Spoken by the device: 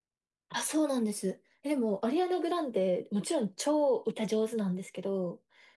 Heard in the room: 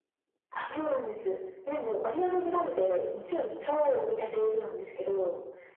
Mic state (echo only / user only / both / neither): echo only